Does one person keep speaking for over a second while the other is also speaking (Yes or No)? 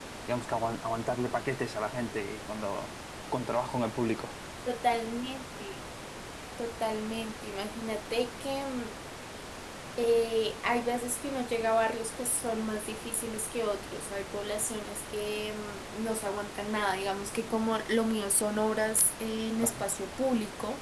No